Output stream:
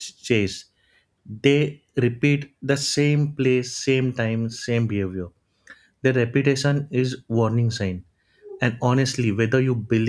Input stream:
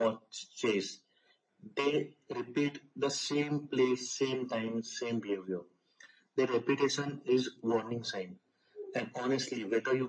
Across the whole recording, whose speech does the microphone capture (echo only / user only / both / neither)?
echo only